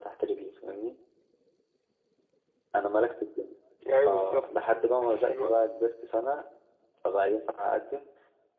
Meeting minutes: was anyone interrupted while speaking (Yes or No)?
Yes